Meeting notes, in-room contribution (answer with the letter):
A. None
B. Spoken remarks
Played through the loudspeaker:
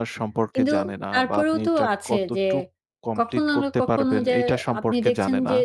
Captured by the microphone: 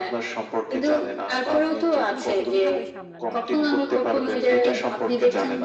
B